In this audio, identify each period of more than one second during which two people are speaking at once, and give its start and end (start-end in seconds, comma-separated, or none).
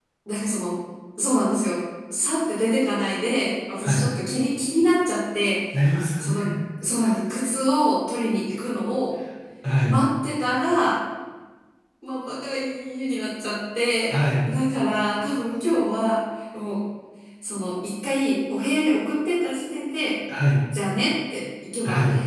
none